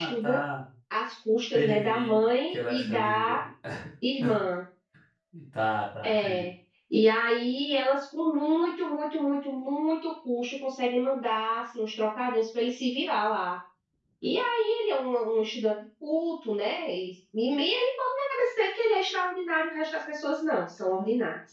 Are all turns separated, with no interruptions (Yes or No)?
No